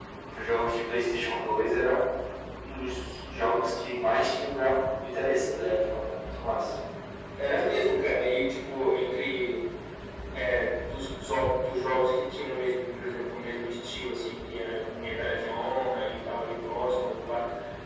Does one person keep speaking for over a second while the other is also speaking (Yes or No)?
No